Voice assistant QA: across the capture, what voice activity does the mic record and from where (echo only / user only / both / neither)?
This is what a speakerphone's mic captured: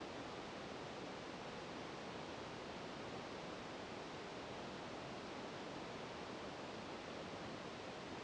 neither